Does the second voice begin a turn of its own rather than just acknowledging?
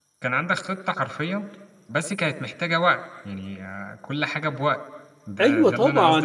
Yes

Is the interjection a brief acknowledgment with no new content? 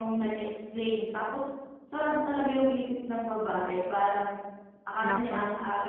Yes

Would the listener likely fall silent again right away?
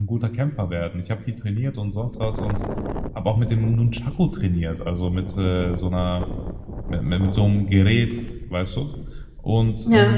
Yes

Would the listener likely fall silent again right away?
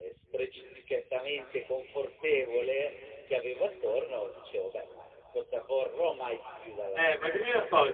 No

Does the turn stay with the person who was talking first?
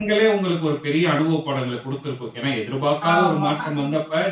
Yes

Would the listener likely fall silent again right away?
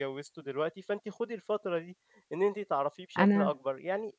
Yes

